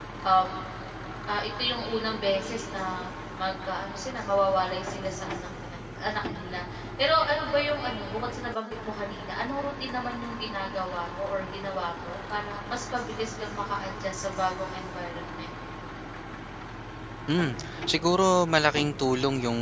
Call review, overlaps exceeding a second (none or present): none